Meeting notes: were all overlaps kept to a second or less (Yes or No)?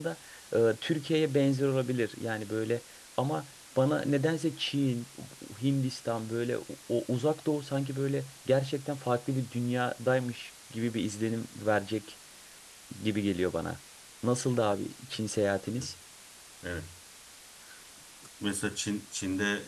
Yes